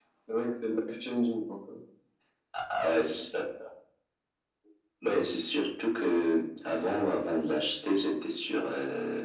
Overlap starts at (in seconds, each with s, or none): none